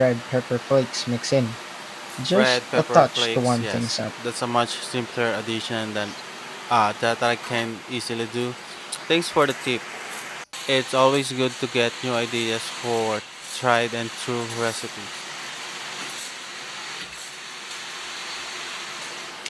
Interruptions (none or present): present